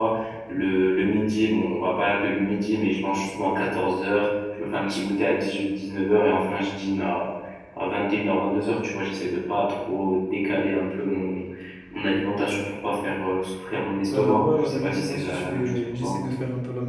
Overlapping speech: Yes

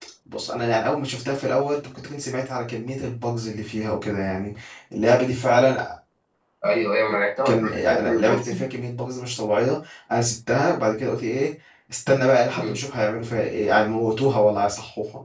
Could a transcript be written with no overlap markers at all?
No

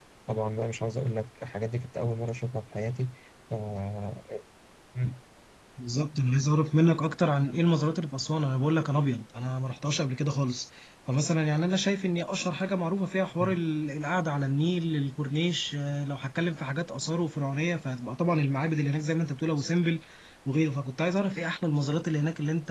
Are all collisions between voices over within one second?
Yes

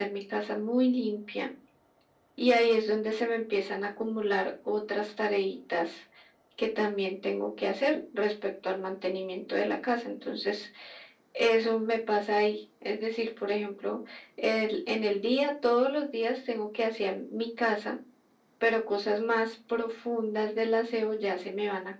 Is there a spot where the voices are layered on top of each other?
No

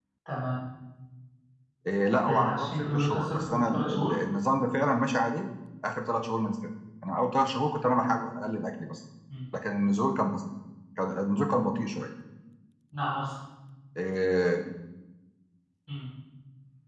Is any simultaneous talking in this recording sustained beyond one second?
Yes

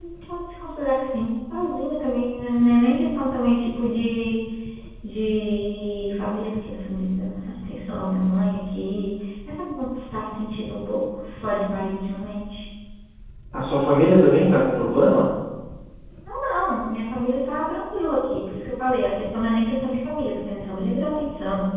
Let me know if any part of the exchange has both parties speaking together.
No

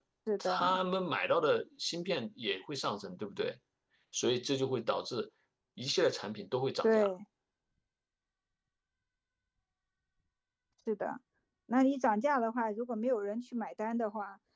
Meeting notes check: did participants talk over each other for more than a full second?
No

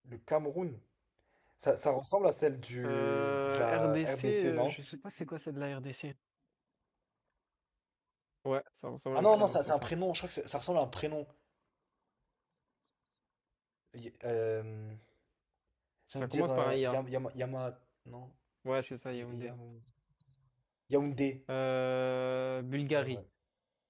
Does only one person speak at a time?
No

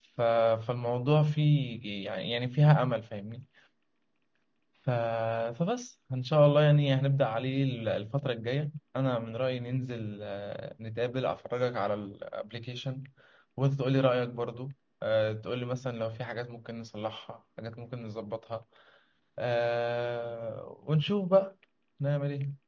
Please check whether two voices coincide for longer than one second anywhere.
No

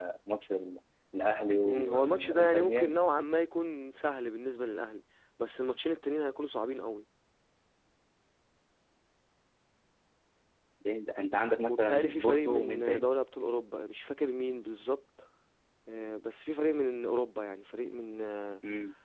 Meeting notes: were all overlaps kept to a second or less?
No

